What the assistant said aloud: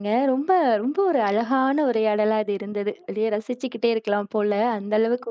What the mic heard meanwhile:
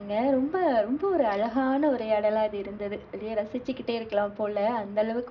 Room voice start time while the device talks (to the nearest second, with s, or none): none